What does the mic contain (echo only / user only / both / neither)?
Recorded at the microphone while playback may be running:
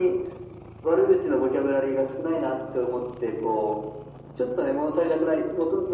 echo only